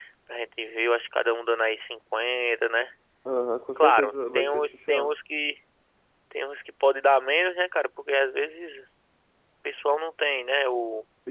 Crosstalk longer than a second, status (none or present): present